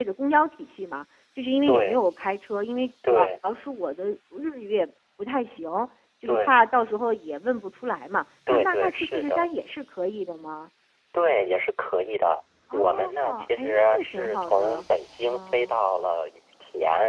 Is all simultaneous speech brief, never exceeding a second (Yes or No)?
No